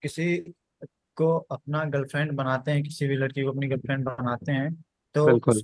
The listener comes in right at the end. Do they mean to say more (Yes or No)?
No